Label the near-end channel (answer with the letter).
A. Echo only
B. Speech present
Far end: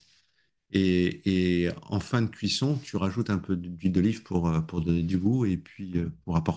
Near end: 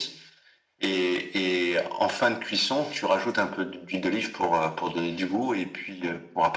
A